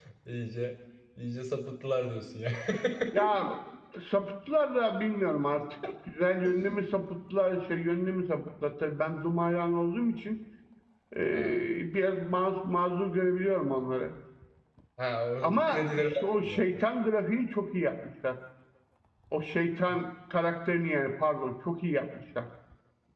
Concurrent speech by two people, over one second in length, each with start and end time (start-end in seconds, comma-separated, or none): 15.4-16.6